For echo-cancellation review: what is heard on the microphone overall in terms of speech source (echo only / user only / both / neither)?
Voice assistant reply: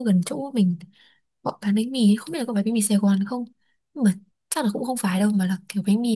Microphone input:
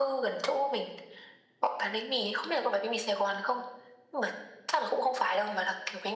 echo only